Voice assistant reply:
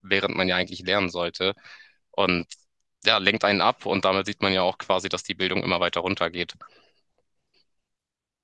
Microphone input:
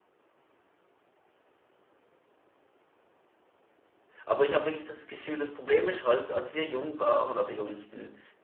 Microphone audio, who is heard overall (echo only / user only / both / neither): user only